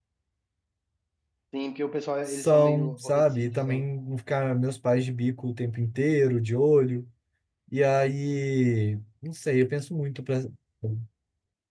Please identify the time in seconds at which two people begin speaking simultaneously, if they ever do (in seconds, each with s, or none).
2.3 s